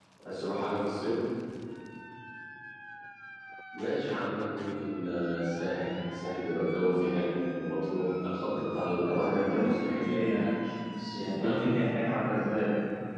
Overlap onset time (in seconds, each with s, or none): 9.1 s